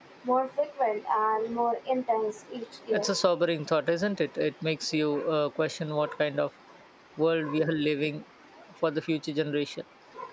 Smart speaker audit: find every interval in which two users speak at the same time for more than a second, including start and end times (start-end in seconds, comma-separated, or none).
none